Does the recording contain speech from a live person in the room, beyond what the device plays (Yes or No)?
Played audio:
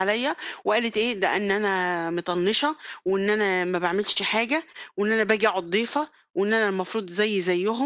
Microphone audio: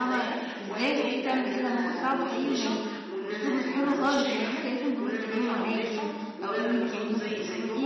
Yes